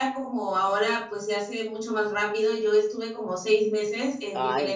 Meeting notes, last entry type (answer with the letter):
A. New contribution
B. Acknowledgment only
B